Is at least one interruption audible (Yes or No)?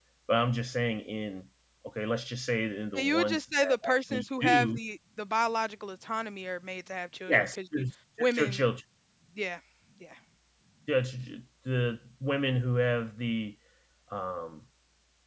Yes